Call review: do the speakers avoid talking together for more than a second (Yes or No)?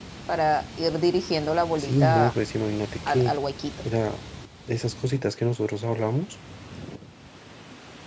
Yes